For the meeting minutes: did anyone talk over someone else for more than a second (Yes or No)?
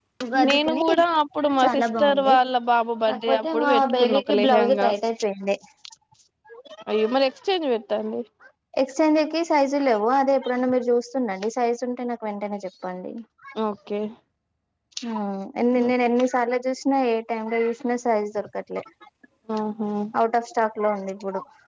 Yes